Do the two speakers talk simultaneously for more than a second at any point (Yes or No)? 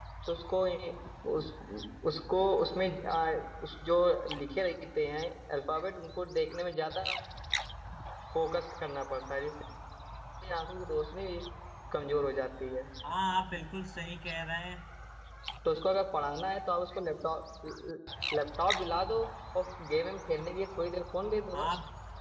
No